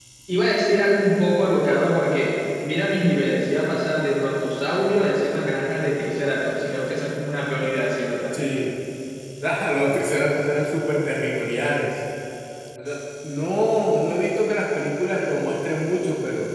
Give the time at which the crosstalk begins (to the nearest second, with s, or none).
none